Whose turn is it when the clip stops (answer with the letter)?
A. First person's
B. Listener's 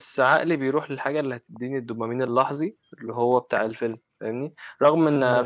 A